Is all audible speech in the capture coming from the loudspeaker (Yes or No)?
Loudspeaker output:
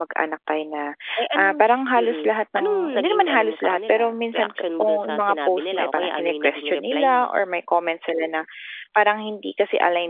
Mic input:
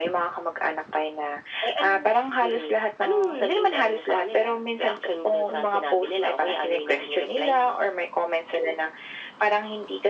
Yes